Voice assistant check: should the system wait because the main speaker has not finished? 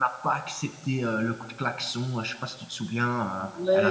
No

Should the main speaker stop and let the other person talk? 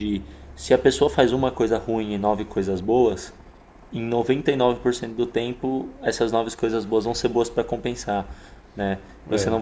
No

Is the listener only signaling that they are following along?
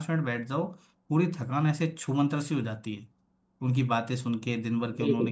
Yes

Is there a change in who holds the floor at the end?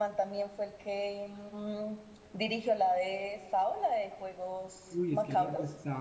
Yes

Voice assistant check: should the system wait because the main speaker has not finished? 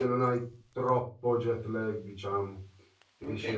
No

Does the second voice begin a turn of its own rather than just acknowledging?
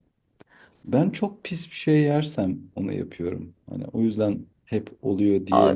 Yes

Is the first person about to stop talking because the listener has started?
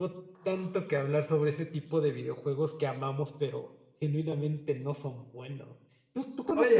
Yes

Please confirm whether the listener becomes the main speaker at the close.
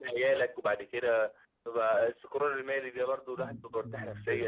Yes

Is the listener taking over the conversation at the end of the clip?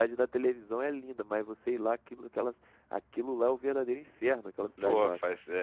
Yes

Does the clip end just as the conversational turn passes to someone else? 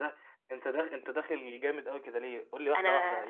No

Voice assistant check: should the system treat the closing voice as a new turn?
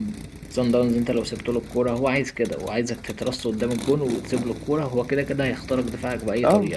Yes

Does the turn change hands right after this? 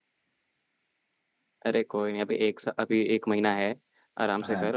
No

